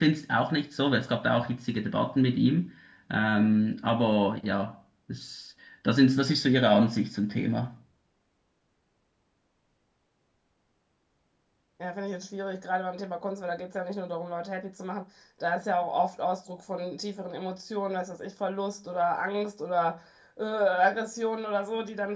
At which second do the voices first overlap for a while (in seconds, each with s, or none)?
none